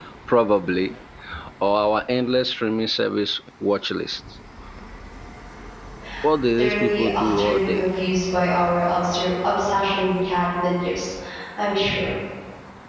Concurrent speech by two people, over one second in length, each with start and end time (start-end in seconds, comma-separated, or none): 6.5-7.9